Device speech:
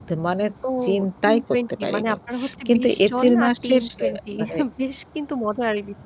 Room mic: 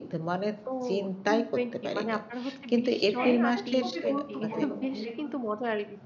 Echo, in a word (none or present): present